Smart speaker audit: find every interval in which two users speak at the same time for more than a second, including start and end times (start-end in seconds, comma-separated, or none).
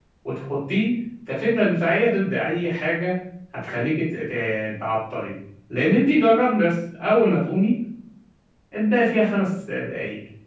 none